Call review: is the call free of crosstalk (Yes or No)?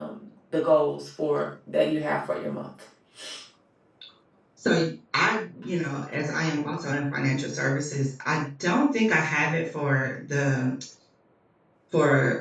Yes